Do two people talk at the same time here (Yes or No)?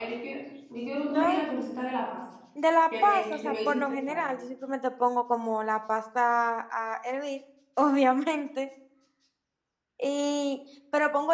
Yes